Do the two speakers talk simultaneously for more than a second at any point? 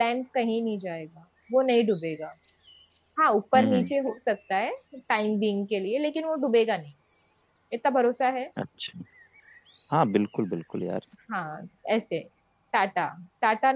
No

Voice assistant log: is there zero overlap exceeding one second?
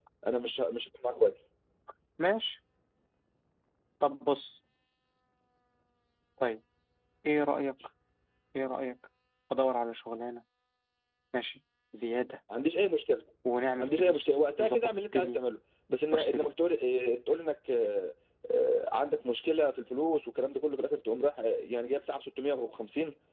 No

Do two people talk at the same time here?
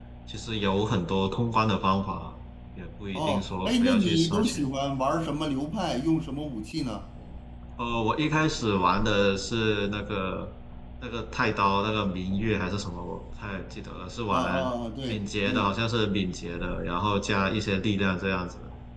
Yes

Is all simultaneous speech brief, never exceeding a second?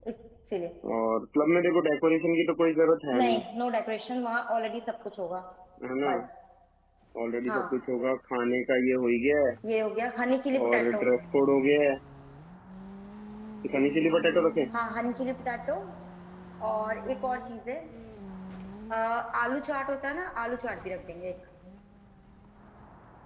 Yes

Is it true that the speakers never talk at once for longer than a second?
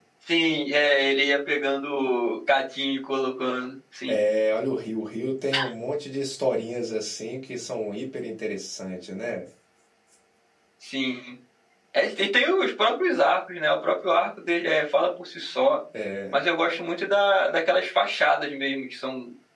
Yes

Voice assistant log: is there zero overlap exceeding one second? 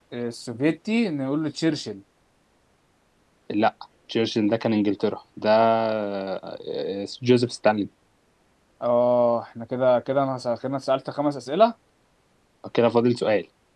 Yes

